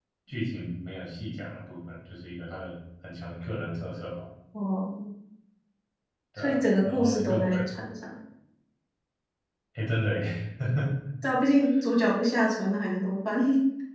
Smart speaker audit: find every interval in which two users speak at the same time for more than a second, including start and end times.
6.4-7.6

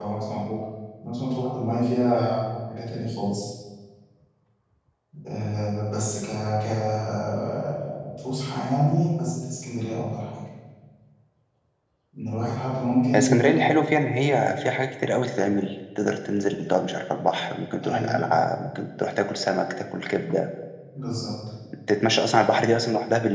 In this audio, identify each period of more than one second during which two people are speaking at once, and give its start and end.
none

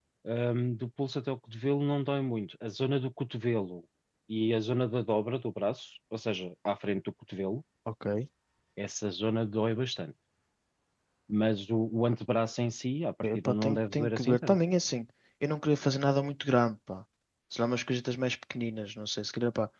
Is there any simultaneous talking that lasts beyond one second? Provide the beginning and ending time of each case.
13.3-14.6

